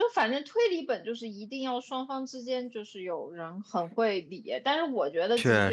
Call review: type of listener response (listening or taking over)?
listening